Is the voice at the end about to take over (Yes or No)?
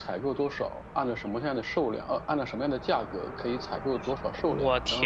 Yes